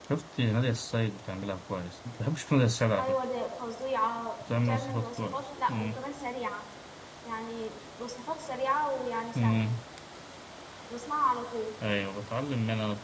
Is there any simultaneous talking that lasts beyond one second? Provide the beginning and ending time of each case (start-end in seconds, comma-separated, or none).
4.5-6.0